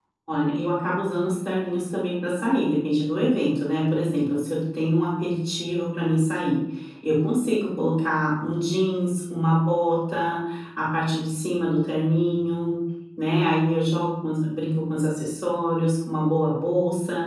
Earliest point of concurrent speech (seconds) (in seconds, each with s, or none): none